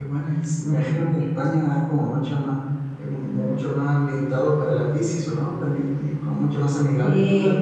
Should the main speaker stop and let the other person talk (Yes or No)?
No